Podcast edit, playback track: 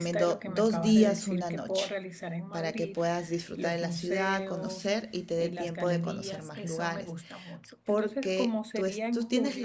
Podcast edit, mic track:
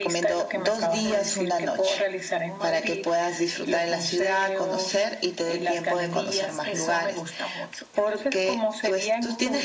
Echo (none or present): present